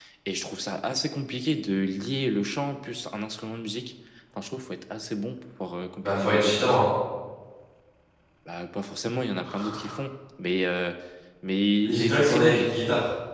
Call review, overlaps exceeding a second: present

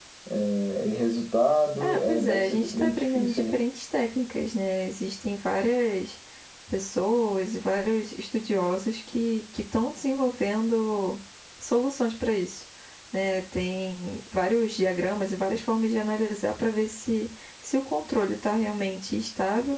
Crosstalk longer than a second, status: present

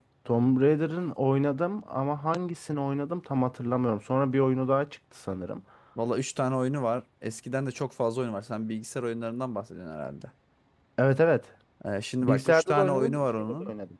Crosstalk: present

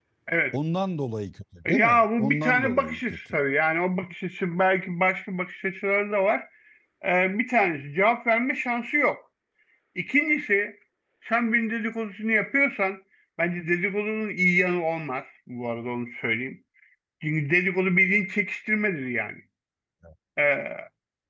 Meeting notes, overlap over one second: present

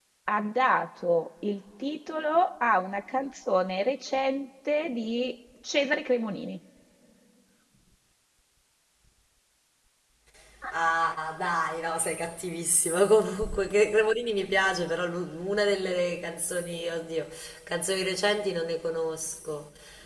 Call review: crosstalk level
none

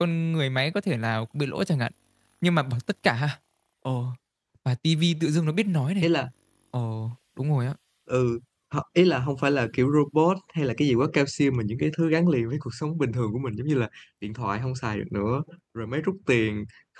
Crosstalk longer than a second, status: none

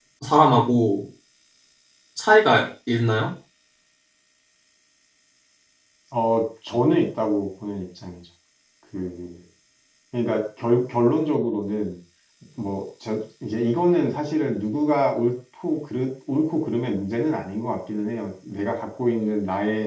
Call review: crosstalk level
none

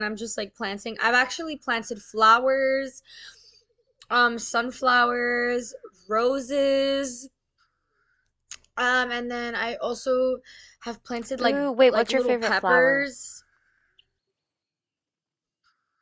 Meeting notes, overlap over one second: present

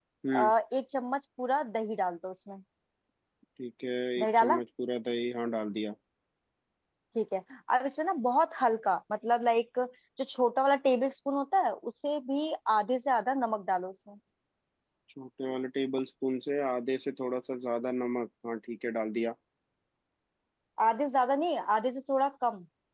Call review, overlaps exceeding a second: none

